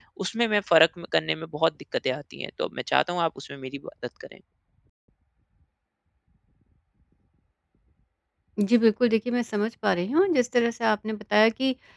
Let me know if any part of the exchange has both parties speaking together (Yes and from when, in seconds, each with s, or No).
No